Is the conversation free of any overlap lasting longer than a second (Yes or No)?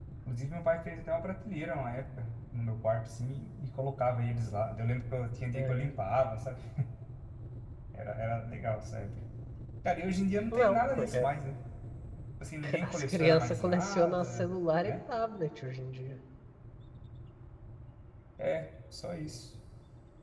No